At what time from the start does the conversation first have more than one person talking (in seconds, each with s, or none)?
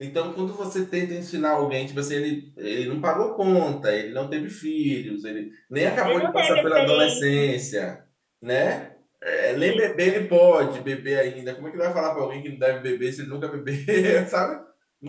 6.0 s